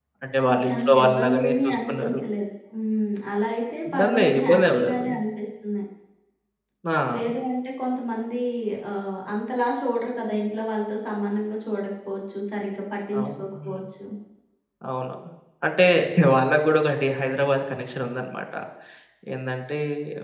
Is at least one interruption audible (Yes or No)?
Yes